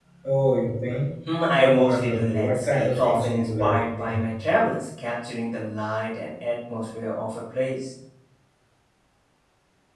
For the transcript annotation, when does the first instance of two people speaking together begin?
2 s

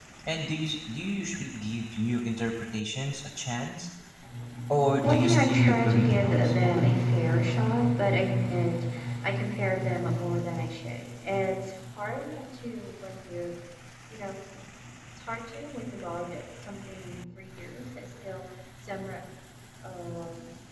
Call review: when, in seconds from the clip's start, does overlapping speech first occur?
5 s

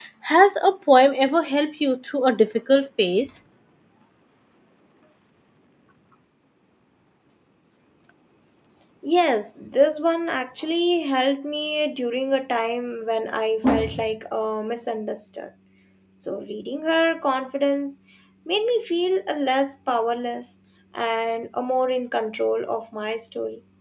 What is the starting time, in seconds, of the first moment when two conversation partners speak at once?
none

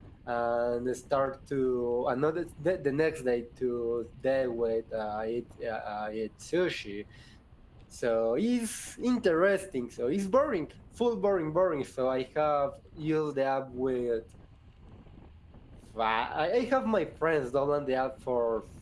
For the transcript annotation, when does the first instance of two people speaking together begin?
none

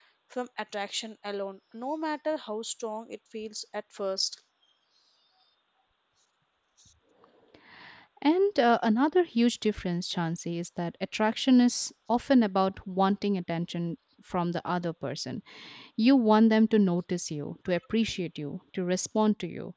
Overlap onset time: none

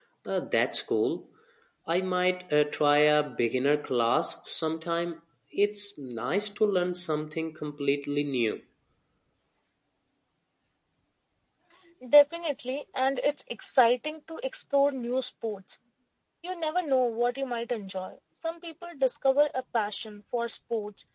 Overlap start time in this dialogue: none

